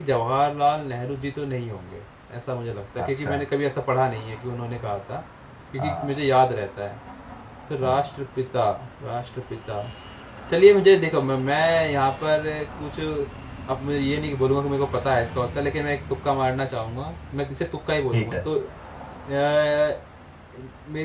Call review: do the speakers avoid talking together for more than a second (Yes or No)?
Yes